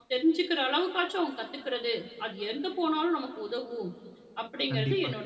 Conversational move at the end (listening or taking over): taking over